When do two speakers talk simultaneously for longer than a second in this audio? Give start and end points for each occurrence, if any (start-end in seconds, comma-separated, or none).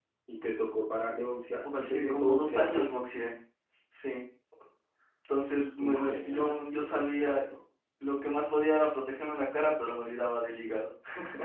1.6-2.9, 5.8-7.4